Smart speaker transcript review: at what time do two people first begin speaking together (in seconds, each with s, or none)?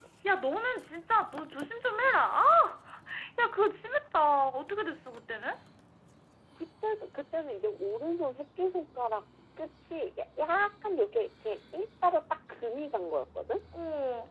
none